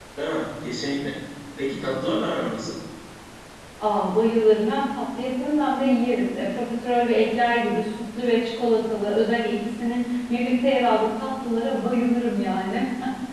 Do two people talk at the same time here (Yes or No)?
No